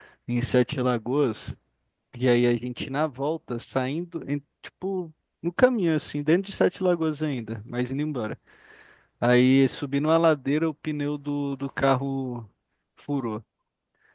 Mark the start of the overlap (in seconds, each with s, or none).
none